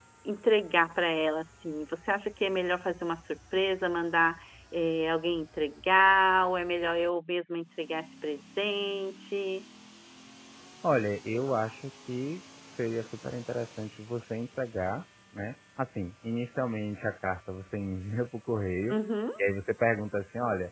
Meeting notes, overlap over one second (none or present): none